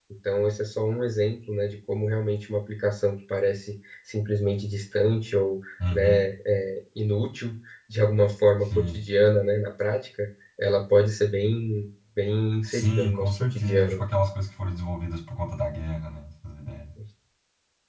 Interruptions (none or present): present